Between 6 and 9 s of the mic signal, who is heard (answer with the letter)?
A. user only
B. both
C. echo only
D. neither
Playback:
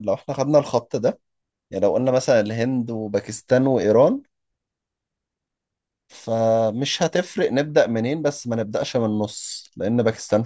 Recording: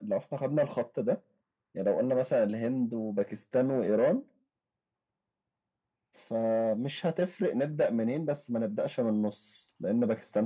C